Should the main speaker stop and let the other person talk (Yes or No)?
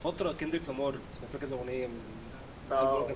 Yes